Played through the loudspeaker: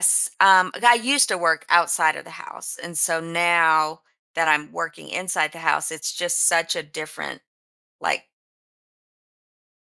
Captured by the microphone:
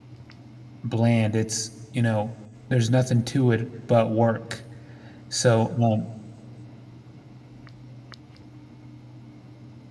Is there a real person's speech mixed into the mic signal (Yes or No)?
Yes